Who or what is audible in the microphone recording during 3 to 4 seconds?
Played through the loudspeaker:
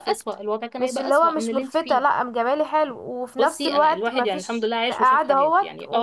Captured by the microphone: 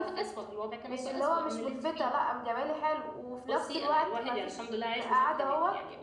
echo only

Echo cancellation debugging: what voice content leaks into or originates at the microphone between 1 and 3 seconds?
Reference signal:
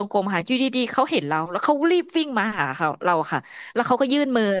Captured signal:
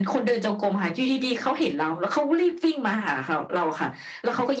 echo only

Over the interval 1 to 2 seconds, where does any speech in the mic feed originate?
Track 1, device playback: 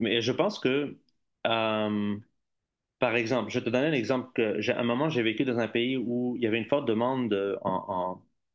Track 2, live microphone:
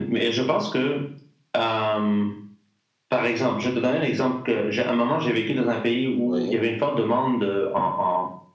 echo only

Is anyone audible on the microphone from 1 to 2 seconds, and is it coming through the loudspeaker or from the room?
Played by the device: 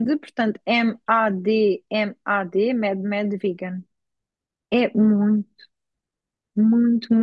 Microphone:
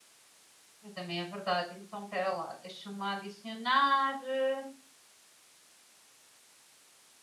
user only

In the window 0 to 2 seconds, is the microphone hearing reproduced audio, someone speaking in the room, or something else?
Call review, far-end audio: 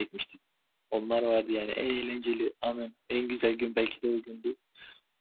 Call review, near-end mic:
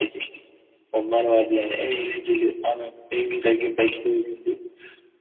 echo only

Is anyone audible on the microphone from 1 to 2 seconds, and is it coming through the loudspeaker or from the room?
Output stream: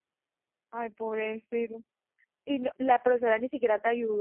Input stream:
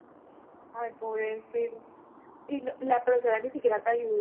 echo only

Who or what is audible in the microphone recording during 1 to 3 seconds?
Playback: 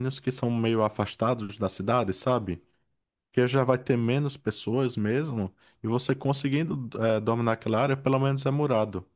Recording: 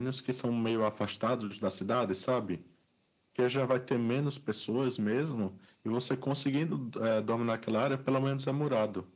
echo only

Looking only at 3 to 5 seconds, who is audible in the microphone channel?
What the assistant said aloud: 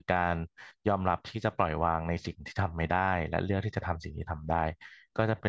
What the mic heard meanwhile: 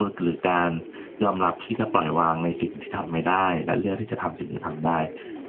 echo only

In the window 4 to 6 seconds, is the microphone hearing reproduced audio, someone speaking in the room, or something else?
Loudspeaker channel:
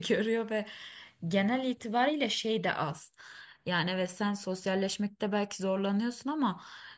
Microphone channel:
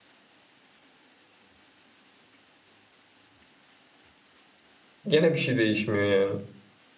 user only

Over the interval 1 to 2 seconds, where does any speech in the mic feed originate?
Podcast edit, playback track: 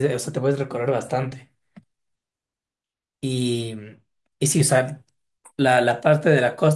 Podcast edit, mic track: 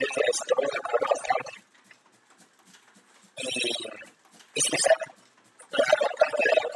echo only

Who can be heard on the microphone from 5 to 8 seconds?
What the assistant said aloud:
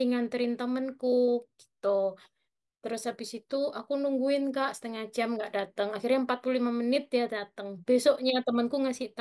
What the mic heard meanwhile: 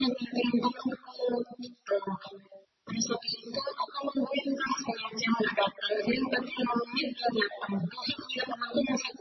echo only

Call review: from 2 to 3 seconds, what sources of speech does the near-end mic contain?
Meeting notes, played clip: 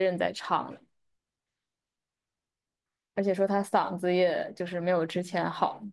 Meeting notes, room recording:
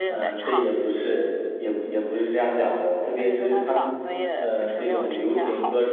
user only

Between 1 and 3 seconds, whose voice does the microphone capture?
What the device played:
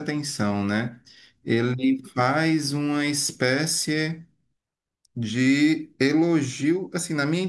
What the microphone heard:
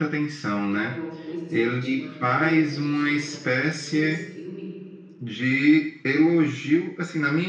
both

